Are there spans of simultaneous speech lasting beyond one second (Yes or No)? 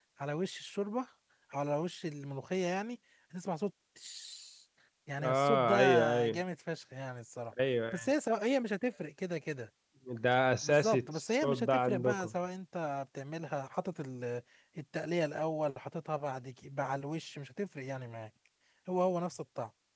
Yes